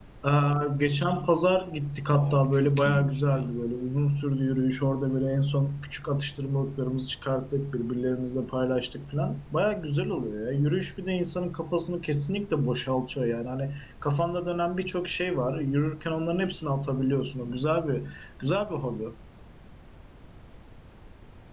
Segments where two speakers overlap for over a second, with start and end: 2.1-3.5

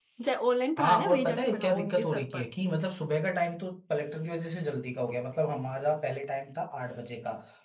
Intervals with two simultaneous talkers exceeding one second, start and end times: 0.8-2.4

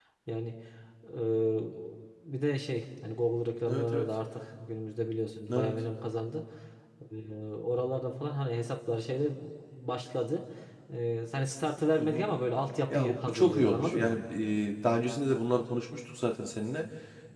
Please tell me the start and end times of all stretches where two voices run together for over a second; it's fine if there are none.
12.9-14.2

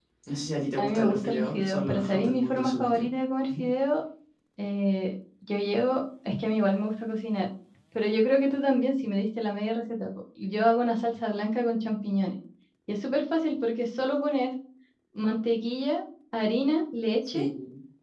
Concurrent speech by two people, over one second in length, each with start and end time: 0.8-3.1

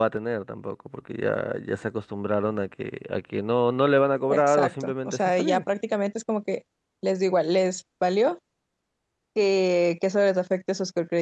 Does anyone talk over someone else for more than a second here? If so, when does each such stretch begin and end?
4.3-5.6

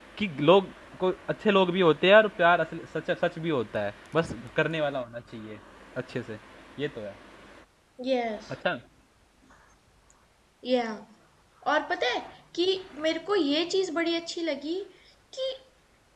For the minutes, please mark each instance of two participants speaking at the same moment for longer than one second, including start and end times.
none

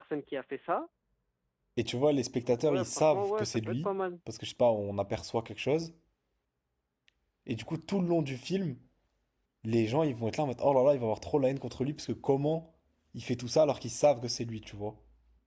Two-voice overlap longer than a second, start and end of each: 2.7-3.9

